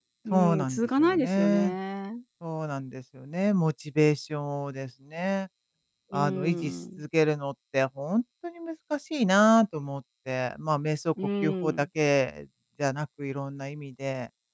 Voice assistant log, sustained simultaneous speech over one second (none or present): present